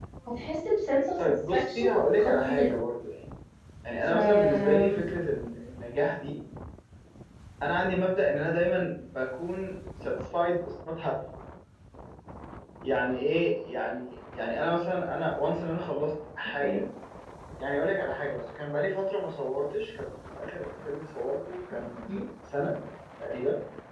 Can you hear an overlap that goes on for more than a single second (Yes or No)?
Yes